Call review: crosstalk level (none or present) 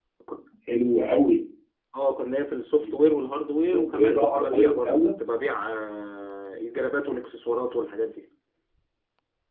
present